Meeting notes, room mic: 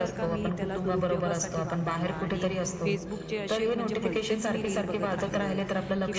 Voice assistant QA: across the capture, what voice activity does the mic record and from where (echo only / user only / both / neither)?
both